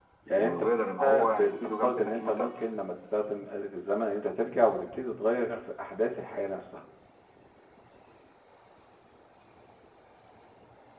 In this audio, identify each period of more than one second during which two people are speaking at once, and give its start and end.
1.0-2.6

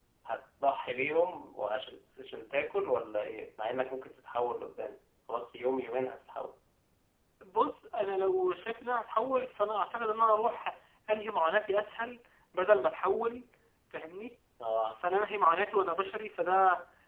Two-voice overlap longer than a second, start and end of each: none

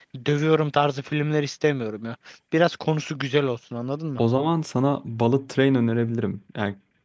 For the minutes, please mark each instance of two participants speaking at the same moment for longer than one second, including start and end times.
none

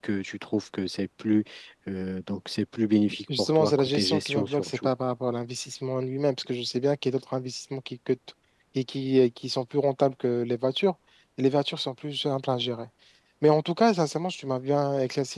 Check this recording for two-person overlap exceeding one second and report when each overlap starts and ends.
3.6-4.9

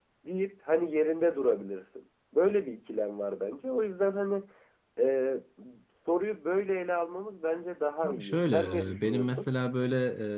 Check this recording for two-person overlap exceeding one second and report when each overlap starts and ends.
8.0-9.5

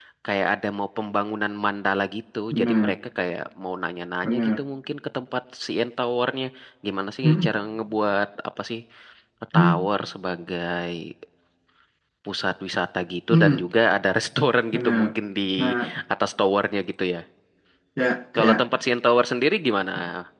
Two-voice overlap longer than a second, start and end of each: none

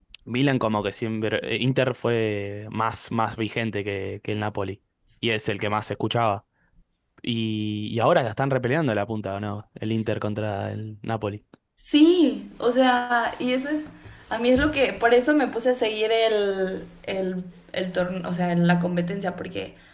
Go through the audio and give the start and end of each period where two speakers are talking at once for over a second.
none

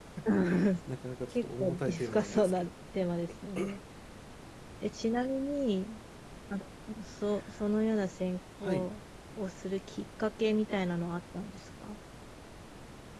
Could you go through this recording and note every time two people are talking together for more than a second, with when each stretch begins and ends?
1.3-2.7

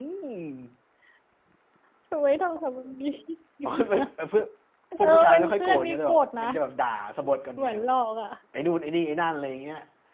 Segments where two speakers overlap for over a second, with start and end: 5.0-6.5

